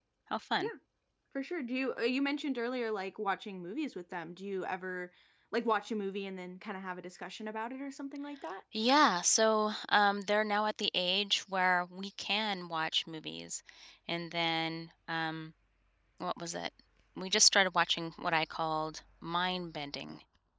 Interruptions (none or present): none